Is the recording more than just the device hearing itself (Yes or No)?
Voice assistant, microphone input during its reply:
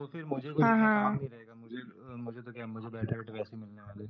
Yes